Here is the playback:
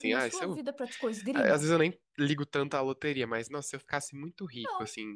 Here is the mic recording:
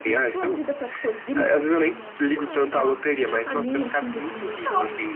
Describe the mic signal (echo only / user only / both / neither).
both